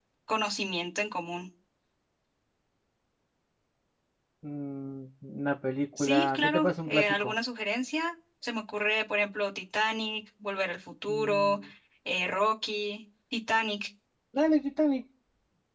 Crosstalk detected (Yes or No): Yes